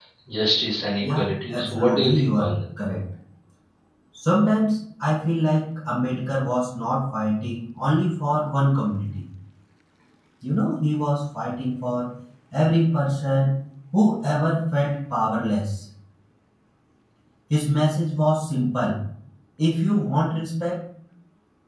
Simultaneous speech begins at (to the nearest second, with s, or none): 1 s